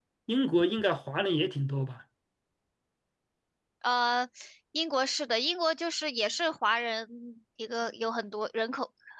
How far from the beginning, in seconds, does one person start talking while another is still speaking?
none

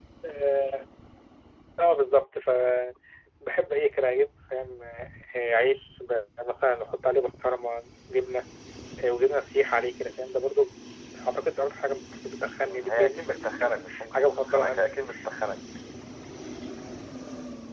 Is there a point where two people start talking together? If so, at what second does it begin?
12.6 s

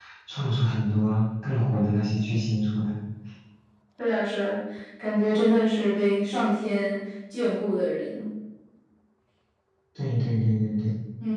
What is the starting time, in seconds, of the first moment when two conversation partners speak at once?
none

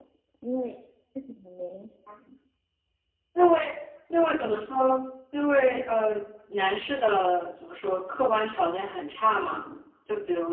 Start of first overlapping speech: none

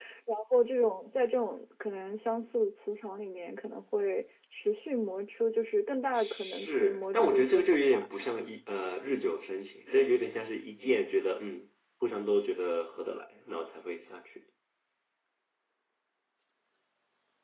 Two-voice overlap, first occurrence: 6.1 s

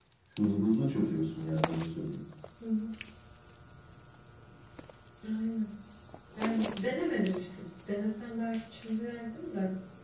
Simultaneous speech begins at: none

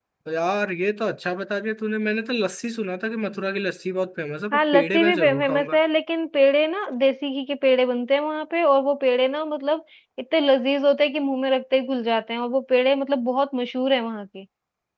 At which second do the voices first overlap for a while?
4.5 s

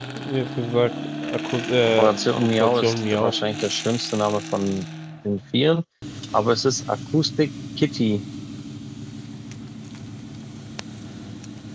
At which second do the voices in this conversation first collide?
1.8 s

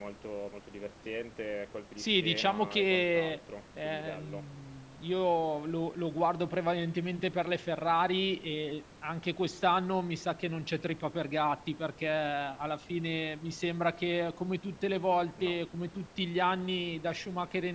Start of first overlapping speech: 2.0 s

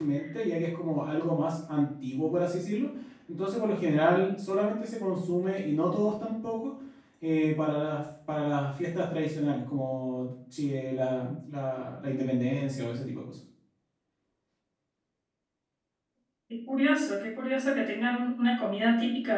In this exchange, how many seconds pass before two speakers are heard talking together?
none

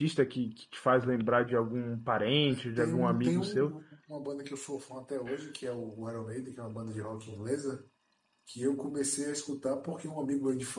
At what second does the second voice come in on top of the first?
2.5 s

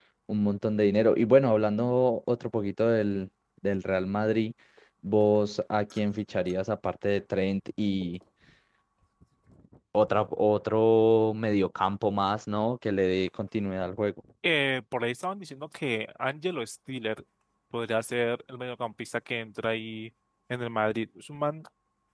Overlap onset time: none

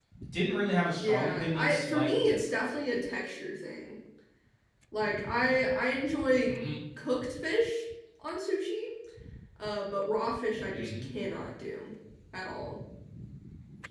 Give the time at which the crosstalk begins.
1.0 s

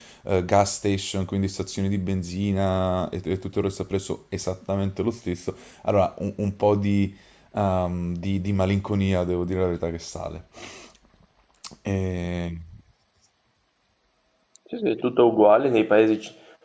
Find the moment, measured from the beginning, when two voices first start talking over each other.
none

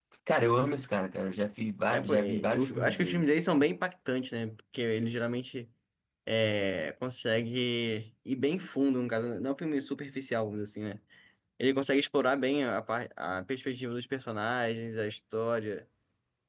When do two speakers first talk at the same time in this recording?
1.9 s

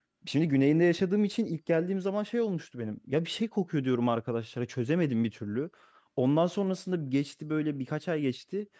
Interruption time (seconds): none

